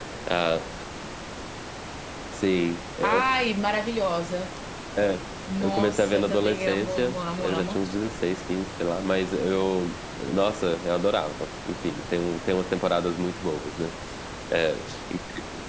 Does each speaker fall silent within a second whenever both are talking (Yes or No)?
No